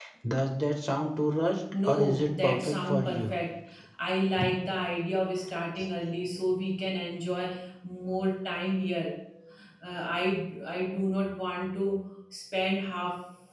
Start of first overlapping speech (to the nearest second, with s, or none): 2 s